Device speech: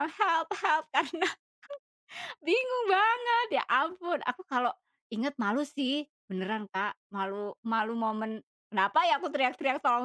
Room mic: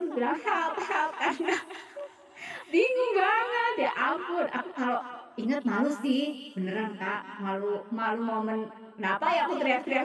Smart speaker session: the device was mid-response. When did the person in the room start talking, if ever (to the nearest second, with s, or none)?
none